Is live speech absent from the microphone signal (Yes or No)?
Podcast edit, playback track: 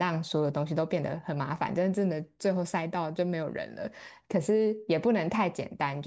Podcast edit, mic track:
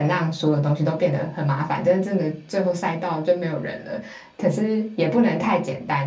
Yes